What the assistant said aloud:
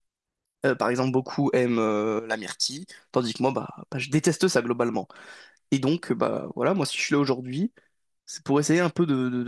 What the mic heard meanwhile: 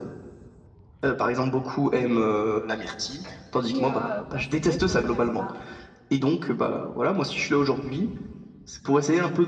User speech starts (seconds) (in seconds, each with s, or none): 3.6 s